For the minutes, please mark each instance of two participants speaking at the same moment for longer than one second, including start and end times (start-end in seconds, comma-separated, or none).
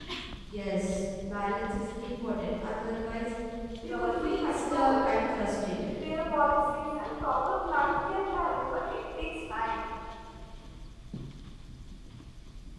3.9-5.1